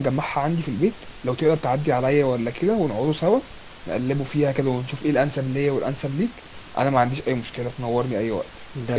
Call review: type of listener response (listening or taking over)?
taking over